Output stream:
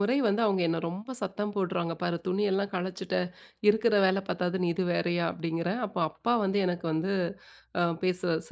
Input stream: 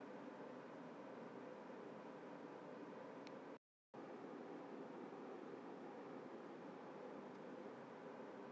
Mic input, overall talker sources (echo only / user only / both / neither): neither